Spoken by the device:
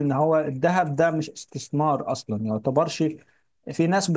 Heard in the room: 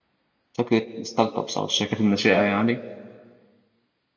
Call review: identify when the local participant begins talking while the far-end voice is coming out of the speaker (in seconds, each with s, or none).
0.5 s